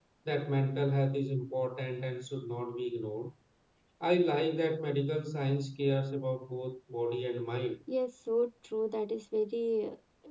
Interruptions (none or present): none